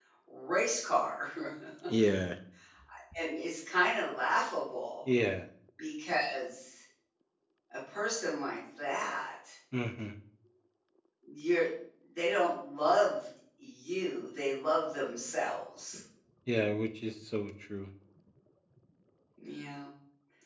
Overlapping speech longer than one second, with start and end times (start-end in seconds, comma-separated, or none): none